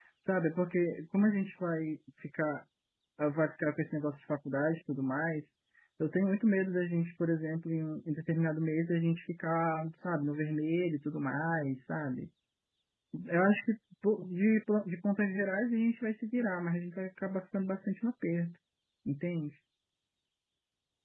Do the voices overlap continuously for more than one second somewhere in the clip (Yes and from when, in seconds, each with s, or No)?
No